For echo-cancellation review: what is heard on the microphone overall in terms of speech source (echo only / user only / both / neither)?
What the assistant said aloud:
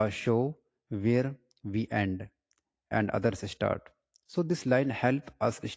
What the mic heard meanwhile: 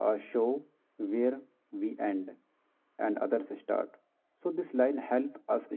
echo only